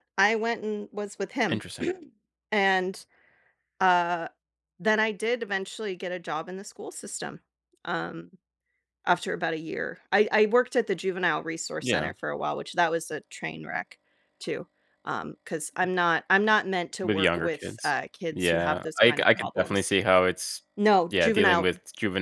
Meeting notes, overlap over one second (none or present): present